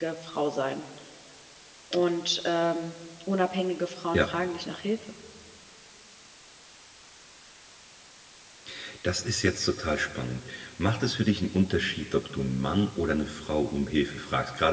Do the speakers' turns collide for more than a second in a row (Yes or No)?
No